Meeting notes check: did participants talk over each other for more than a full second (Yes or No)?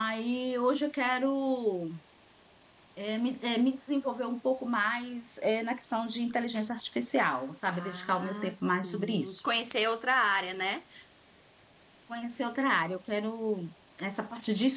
Yes